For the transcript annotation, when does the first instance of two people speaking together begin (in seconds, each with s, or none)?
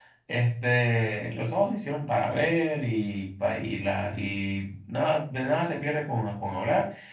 none